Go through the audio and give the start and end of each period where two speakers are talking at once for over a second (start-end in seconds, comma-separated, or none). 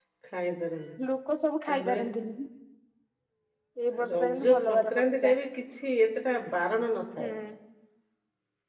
4.1-5.4